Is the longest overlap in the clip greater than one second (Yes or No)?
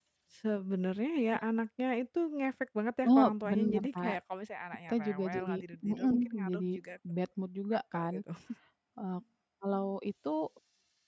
Yes